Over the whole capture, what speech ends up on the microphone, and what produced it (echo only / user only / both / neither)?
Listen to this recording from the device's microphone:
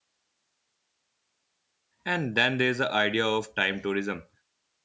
user only